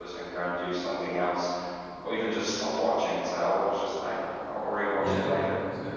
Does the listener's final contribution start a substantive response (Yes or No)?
Yes